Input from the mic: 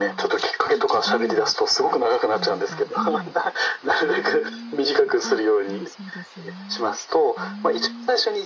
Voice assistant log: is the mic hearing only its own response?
No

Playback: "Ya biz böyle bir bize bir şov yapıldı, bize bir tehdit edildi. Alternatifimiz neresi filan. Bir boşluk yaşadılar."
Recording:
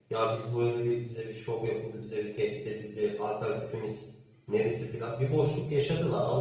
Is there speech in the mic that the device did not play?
No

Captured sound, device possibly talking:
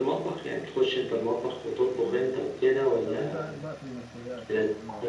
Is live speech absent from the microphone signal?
No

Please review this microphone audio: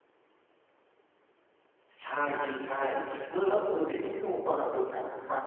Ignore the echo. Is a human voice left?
Yes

